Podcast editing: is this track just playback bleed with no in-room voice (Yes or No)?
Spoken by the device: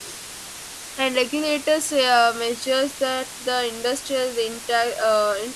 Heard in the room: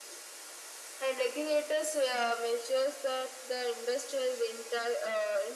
Yes